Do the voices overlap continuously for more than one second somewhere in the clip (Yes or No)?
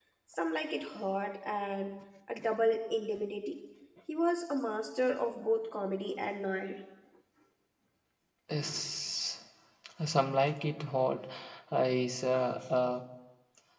No